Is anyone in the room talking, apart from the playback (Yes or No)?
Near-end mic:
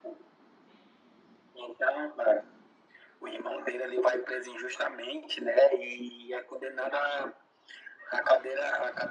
No